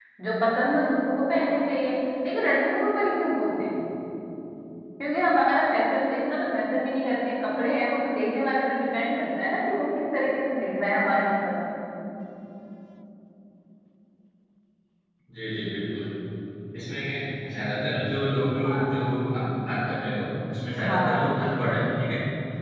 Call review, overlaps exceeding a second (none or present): none